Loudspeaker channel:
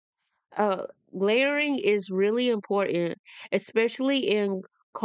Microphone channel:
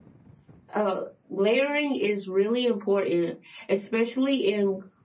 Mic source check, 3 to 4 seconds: echo only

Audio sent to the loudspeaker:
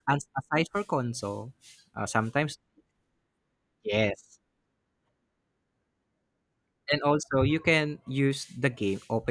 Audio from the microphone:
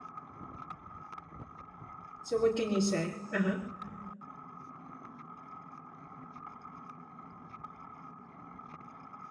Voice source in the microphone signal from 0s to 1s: neither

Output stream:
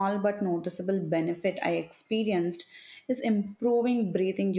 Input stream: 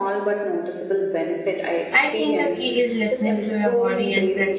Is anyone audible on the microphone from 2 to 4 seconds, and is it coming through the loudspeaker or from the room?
both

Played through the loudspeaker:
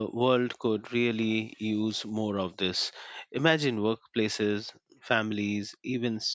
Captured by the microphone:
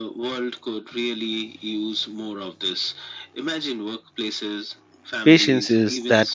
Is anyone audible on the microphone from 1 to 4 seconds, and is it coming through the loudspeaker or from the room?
echo only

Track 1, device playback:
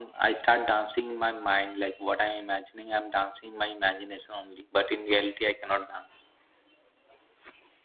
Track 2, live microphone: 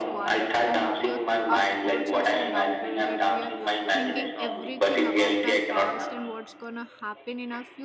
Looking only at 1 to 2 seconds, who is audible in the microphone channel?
both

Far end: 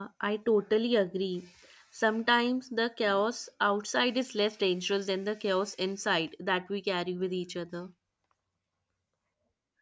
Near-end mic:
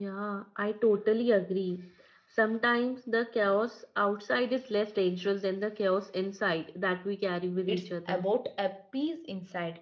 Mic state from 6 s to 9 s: both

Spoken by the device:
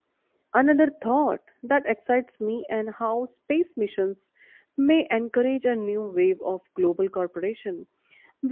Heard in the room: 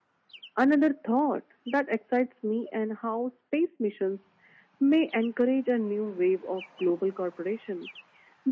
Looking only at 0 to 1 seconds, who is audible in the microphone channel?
echo only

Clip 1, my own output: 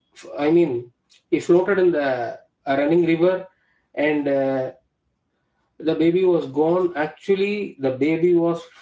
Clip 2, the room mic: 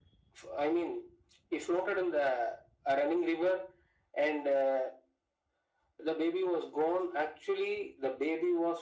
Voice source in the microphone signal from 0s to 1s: echo only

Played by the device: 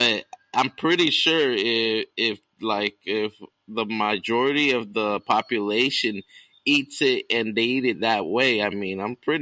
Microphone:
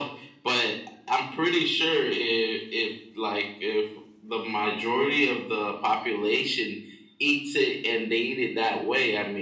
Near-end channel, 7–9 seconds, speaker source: echo only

